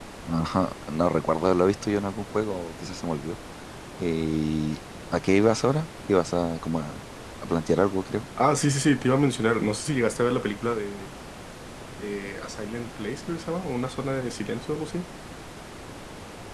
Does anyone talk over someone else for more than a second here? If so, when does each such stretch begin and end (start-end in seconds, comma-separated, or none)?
none